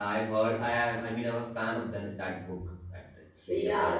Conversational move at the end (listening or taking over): taking over